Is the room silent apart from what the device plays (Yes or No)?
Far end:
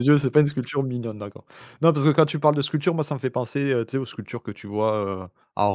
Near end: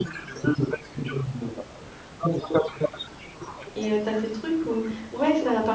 No